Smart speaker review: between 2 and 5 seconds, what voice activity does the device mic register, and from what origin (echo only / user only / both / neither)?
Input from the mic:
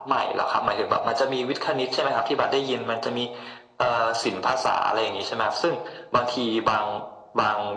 echo only